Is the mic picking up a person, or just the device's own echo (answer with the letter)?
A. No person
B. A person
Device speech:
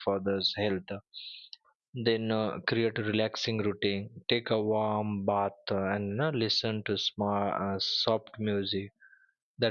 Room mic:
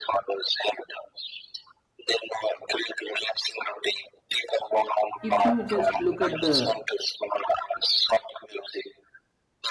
B